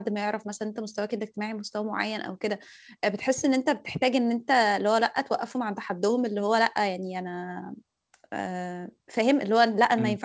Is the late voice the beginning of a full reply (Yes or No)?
No